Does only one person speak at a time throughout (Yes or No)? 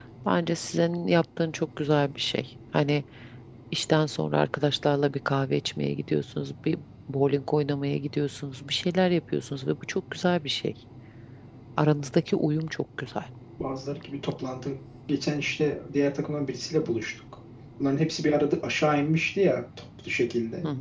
Yes